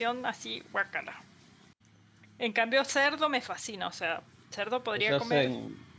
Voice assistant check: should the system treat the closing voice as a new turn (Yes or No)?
Yes